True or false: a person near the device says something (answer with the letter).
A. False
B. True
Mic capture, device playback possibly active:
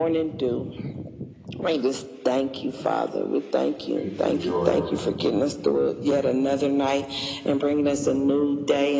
B